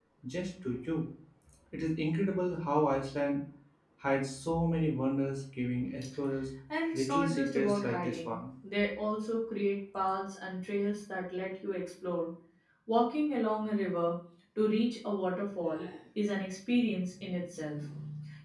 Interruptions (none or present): present